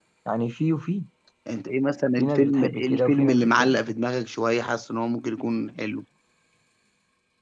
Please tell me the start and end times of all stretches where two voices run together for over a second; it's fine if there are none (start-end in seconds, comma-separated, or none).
2.2-3.8